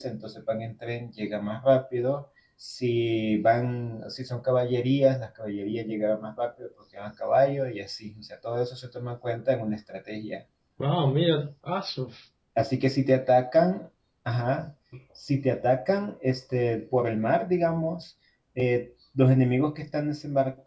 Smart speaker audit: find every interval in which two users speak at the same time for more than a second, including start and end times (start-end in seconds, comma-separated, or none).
none